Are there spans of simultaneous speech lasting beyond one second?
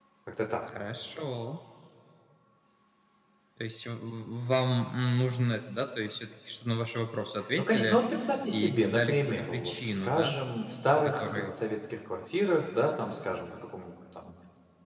Yes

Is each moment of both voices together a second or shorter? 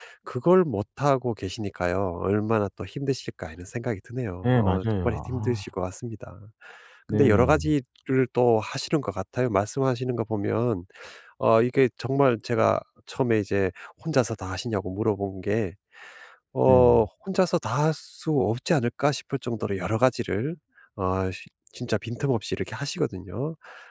No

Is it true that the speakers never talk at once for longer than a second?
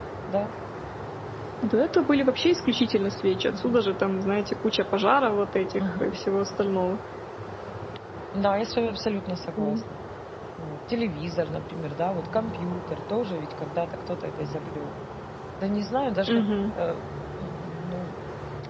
Yes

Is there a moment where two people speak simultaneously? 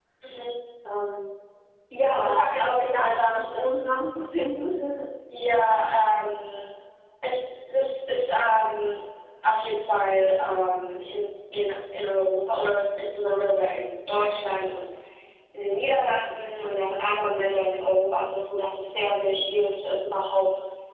Yes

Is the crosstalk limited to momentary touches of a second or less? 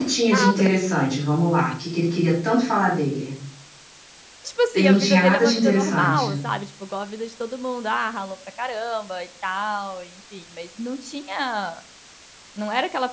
No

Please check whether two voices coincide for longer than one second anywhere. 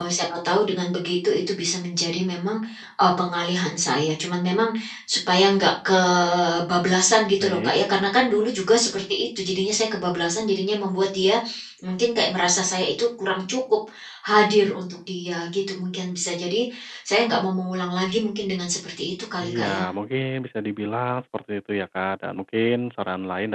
No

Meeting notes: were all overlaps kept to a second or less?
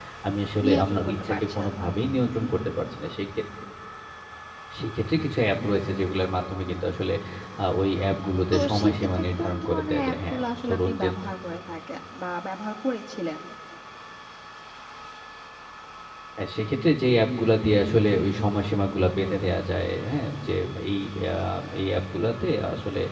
No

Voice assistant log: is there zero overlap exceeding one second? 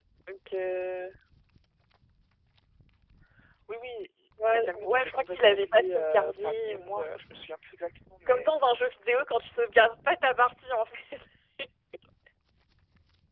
No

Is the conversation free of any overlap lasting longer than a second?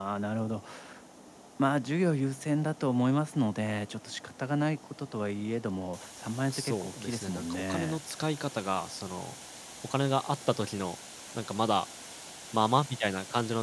No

